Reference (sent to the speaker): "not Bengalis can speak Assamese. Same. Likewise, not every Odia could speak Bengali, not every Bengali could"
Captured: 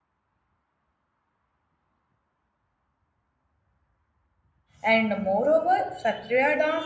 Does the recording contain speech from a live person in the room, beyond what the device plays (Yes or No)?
Yes